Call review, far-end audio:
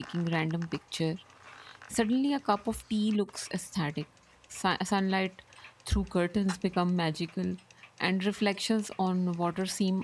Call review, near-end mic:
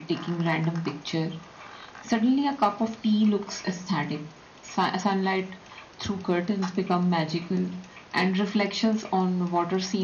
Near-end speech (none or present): none